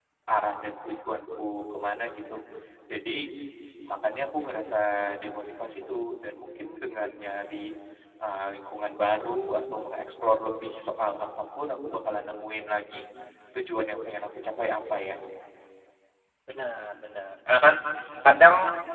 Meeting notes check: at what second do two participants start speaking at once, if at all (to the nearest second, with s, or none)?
none